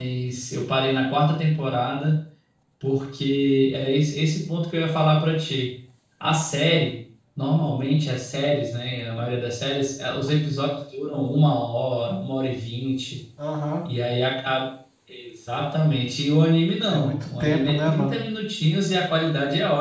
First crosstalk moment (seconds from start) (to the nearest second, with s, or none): 17 s